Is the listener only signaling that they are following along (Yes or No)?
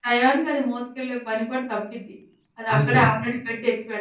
Yes